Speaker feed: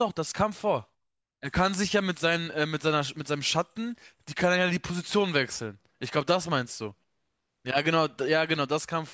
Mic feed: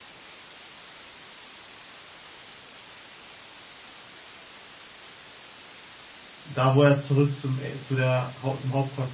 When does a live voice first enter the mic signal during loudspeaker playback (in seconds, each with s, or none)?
6.4 s